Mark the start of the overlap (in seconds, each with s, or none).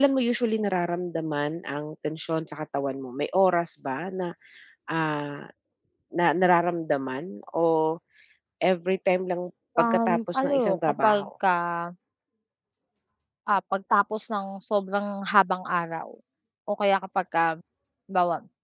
9.8 s